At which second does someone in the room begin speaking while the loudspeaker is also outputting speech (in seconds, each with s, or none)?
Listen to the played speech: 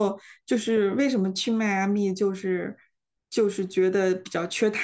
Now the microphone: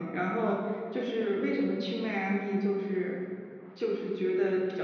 none